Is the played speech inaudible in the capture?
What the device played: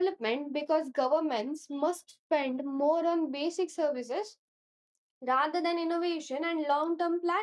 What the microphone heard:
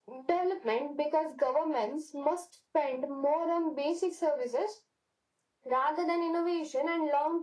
No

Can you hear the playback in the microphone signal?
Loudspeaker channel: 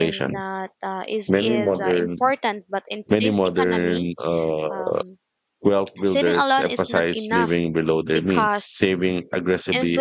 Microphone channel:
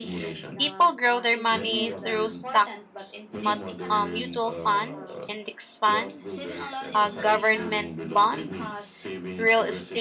Yes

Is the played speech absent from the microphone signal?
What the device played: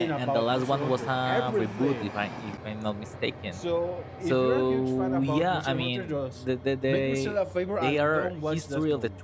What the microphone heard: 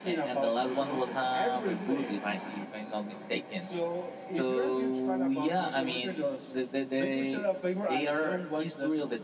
No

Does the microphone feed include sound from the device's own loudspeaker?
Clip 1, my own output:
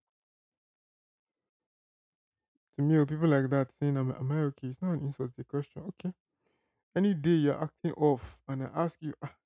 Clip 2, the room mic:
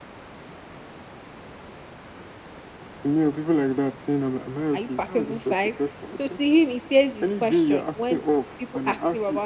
Yes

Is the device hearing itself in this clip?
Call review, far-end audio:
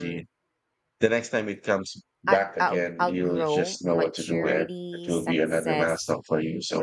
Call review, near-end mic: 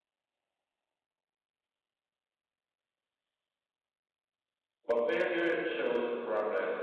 No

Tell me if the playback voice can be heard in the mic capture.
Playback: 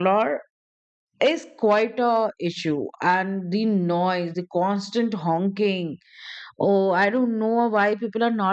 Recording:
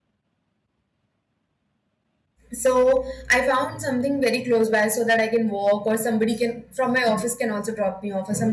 No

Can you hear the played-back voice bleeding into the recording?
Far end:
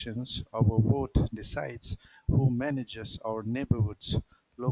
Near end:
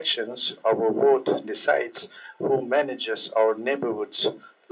Yes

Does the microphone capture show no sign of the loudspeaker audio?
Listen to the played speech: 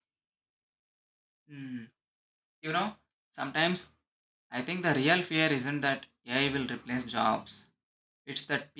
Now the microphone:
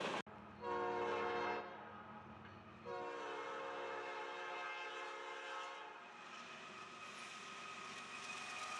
Yes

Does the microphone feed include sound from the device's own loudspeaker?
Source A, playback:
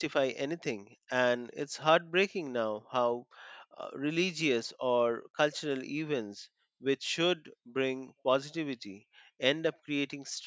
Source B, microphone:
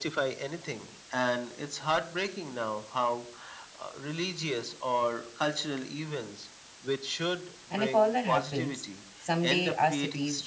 Yes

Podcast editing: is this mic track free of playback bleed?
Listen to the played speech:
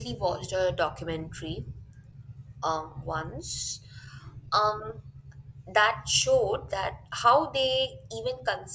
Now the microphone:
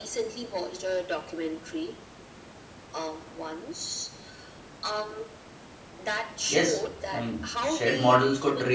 No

